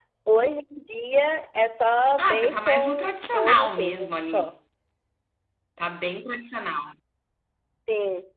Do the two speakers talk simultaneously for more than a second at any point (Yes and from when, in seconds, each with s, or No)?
Yes, from 2.2 s